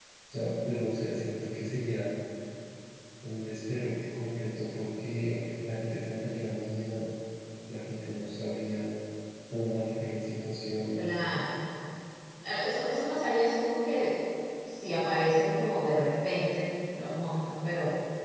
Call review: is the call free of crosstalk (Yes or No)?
Yes